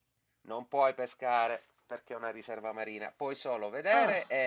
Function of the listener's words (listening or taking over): listening